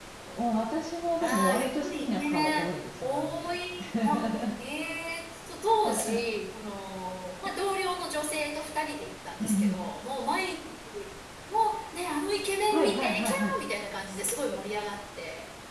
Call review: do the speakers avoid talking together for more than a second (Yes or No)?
No